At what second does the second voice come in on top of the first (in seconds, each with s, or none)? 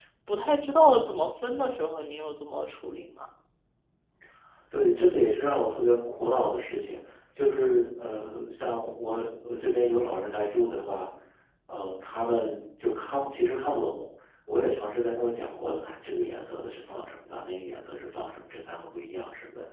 none